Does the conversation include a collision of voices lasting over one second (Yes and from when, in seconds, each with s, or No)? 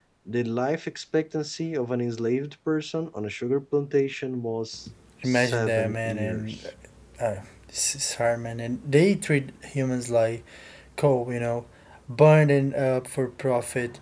Yes, from 5.2 s